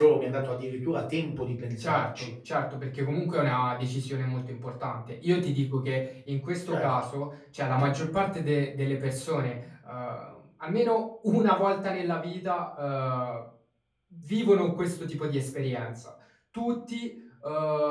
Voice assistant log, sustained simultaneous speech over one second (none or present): none